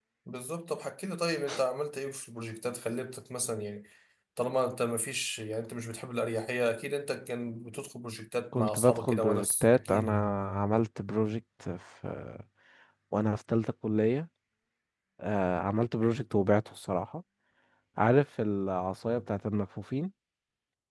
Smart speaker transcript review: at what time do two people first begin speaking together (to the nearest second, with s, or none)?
9 s